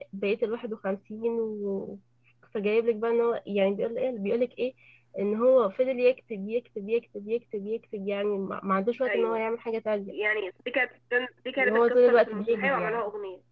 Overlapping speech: Yes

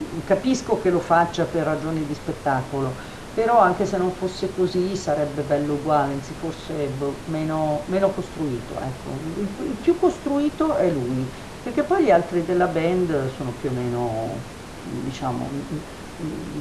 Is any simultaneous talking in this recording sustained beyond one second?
No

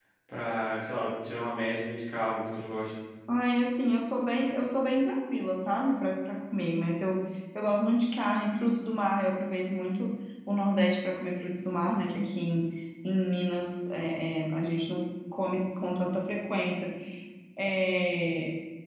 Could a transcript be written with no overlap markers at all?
Yes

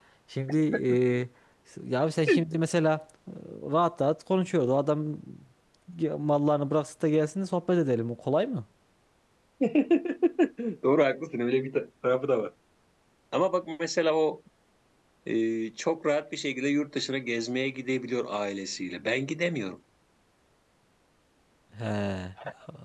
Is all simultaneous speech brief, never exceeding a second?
Yes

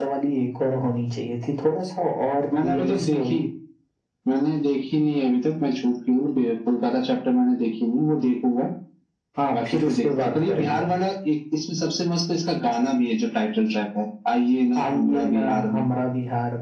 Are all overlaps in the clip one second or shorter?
No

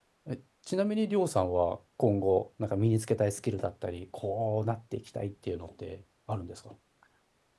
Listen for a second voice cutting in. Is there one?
No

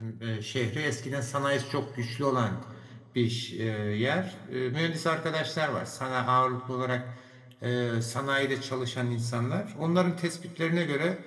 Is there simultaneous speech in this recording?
No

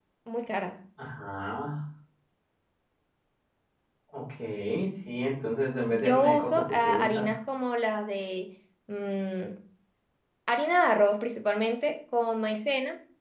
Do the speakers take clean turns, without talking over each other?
No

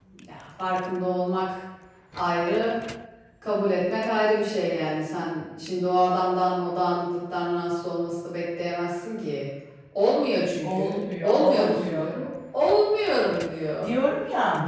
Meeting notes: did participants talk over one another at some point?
Yes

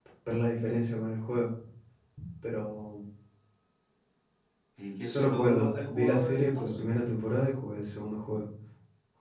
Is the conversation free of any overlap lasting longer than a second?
No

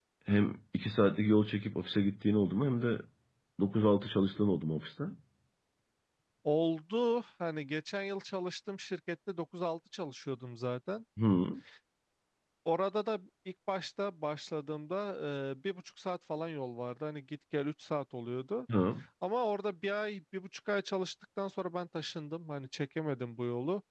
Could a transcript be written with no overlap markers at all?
Yes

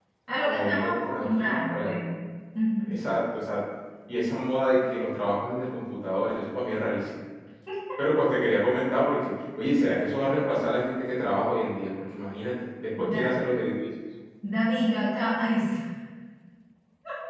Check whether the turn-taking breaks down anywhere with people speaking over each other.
Yes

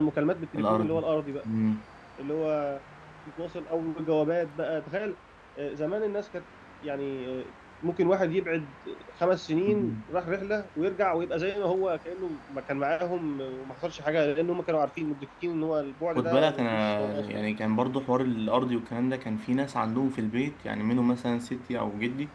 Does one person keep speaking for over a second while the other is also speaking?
Yes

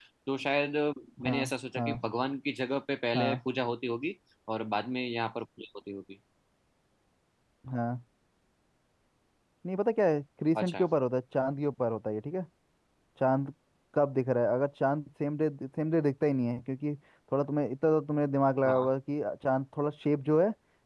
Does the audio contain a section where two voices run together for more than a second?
No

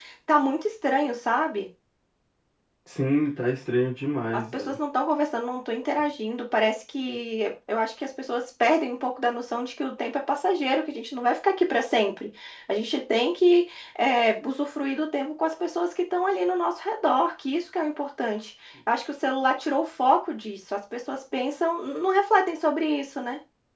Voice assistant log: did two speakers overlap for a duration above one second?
No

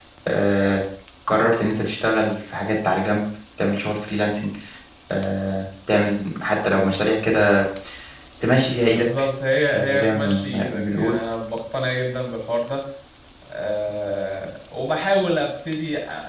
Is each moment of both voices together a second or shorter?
No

